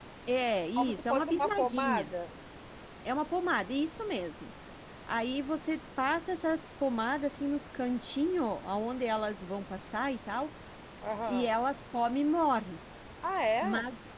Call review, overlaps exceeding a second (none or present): present